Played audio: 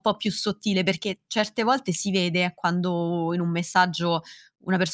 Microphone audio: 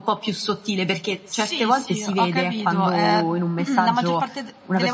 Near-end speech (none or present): present